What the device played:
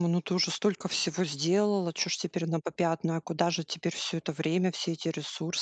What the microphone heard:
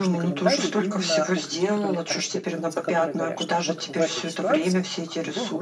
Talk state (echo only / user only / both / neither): both